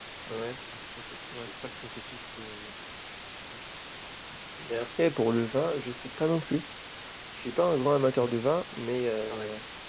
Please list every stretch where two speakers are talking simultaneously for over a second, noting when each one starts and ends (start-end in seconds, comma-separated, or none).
none